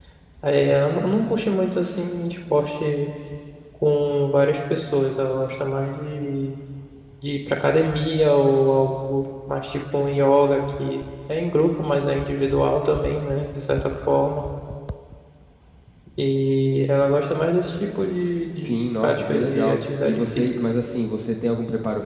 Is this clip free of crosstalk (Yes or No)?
No